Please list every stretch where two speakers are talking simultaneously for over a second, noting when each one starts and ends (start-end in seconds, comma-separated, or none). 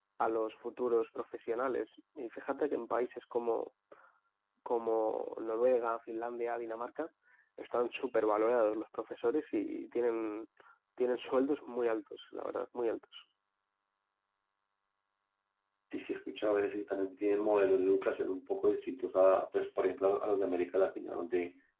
none